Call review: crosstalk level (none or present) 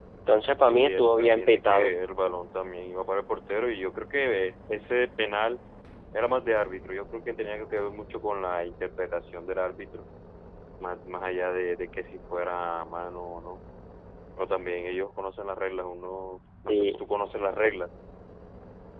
present